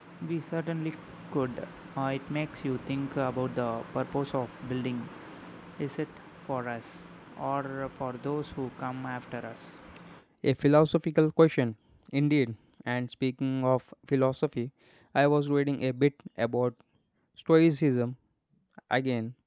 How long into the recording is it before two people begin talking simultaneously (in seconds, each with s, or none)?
none